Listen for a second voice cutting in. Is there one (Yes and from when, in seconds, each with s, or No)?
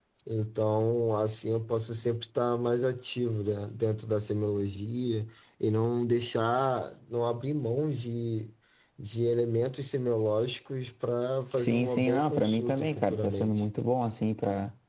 Yes, from 11.5 s